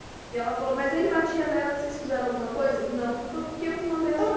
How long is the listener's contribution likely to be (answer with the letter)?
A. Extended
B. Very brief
B